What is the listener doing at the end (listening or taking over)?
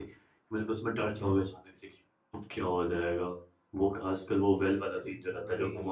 listening